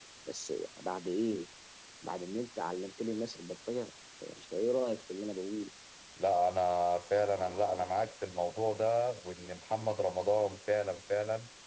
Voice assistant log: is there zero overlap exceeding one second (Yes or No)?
Yes